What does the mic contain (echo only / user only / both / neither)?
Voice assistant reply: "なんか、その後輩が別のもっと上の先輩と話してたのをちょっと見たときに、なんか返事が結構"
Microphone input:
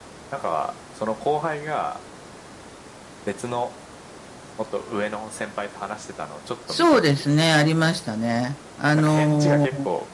both